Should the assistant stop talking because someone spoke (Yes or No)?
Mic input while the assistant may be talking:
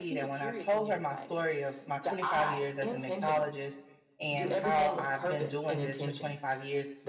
Yes